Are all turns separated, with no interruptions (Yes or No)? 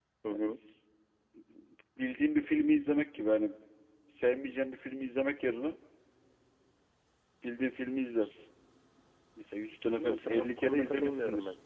No